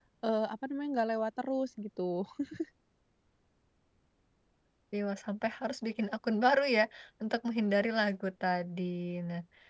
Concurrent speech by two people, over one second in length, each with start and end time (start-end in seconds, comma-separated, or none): none